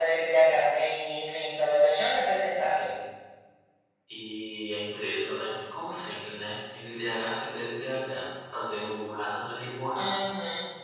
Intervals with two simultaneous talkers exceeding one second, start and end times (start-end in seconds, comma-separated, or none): none